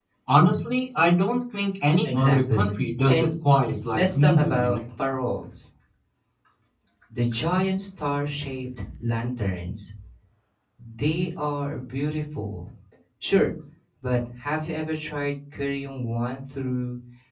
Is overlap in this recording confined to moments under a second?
No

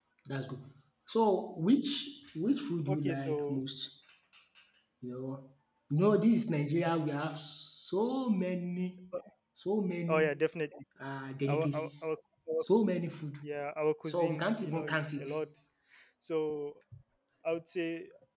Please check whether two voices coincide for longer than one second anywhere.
Yes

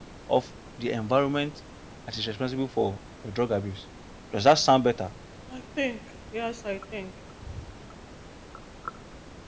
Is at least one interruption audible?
No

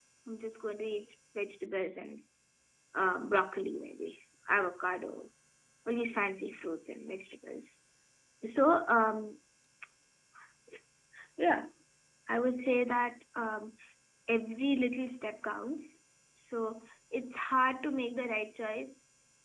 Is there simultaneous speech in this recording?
No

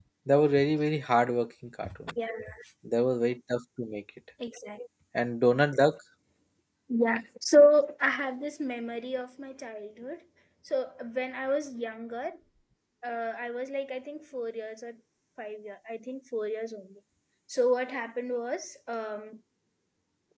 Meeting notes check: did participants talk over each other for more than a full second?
No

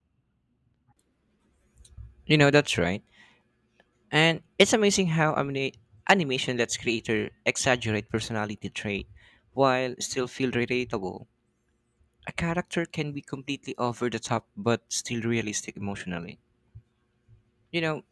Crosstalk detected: No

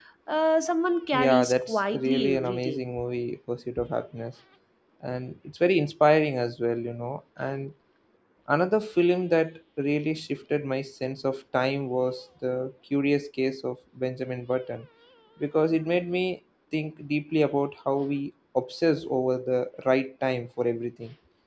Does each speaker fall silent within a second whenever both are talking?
No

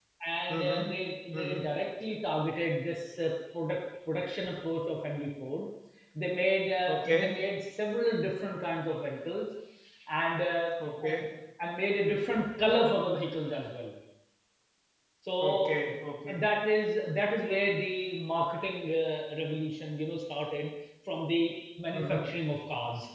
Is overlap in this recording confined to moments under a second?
Yes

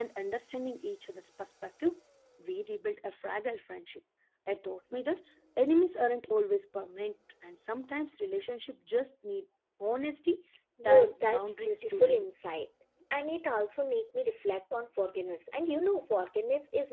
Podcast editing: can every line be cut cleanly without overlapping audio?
No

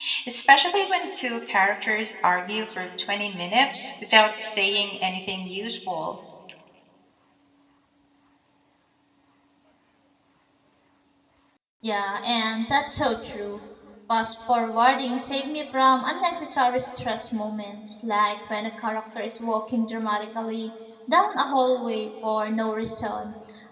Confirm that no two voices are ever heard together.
Yes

